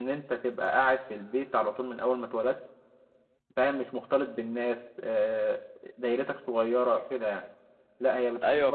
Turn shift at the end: No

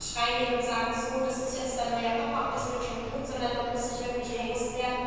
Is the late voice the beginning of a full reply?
No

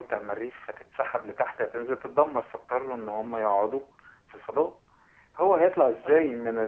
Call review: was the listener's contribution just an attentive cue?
Yes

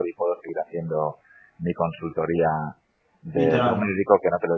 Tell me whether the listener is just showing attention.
Yes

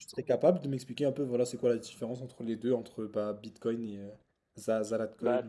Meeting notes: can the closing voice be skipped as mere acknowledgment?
No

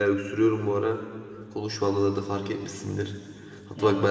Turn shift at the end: No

